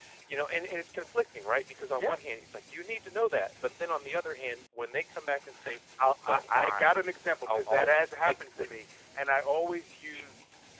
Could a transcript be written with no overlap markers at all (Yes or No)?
No